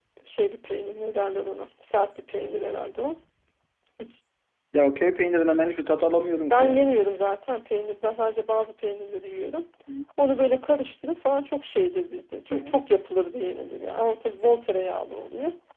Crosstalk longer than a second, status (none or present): none